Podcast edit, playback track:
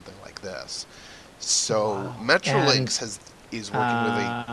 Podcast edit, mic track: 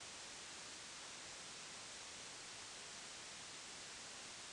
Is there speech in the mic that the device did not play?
No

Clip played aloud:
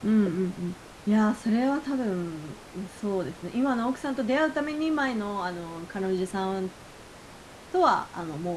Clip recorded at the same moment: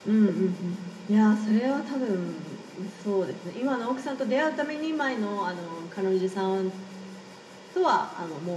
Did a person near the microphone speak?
No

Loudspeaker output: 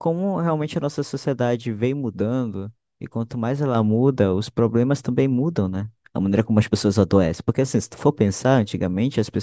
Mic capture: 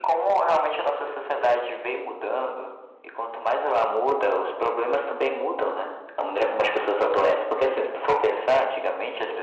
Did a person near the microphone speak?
No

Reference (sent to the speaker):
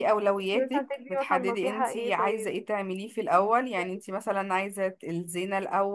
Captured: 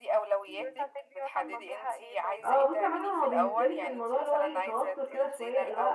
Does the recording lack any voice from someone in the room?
No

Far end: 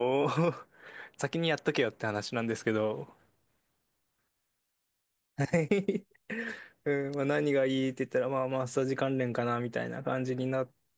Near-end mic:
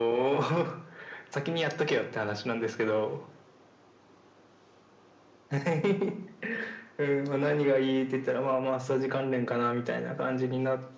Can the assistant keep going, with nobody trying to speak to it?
Yes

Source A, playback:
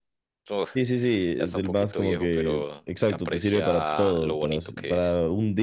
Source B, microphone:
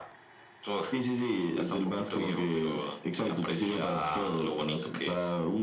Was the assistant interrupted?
No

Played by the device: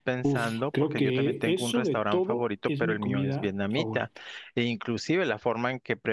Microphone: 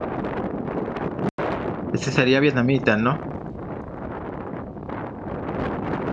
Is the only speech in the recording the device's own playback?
No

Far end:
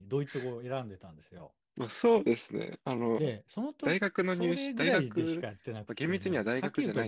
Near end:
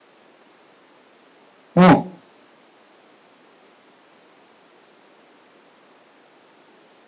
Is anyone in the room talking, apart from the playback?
Yes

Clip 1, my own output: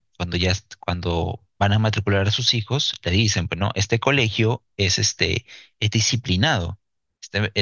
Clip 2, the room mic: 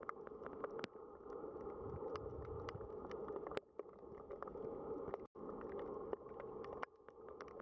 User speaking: No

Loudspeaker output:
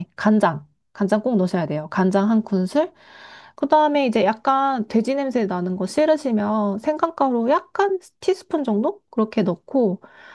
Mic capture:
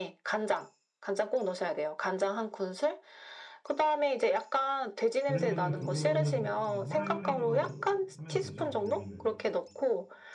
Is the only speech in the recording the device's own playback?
No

